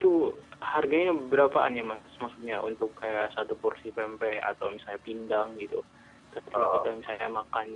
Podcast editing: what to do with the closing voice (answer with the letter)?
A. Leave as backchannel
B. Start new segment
A